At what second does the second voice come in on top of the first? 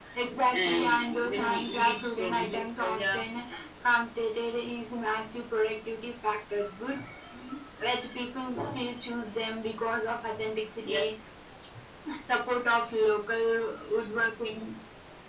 0.5 s

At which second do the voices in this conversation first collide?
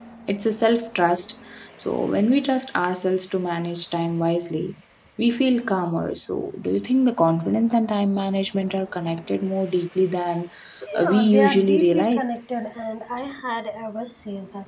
11.0 s

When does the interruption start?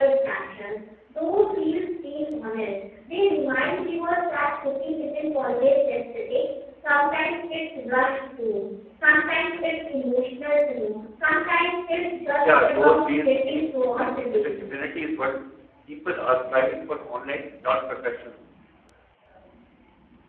12.4 s

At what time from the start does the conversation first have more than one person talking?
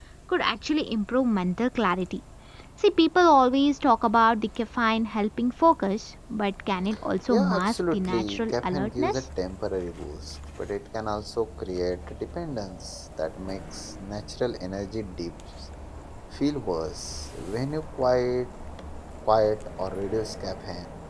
7.3 s

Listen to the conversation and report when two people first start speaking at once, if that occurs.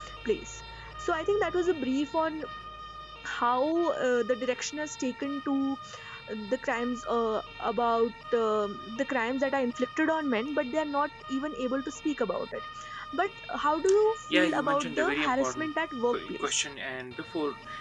14.3 s

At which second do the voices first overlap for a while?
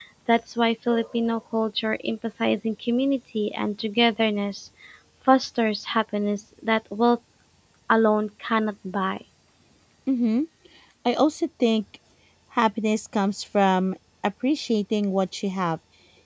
none

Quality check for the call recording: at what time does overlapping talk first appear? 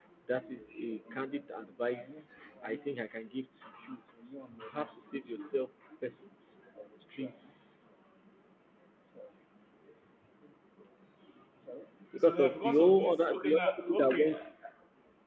12.3 s

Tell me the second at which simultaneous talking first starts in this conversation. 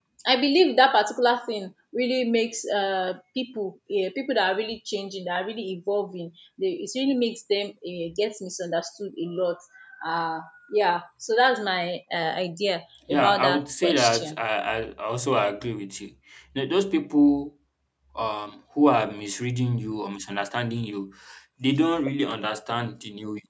13.1 s

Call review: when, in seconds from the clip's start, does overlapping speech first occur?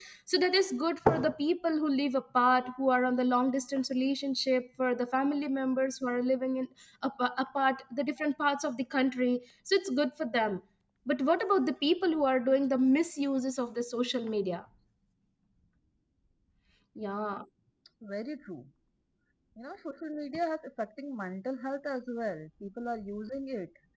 none

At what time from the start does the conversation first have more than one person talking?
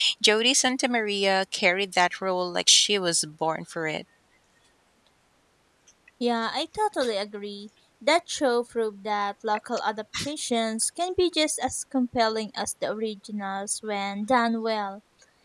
none

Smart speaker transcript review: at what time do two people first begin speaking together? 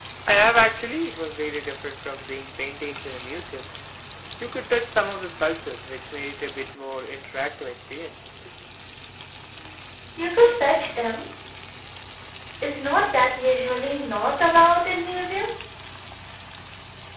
none

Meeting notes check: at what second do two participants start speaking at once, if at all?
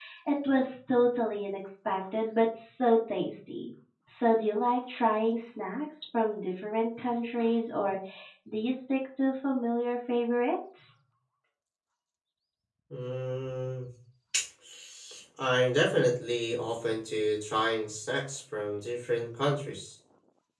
none

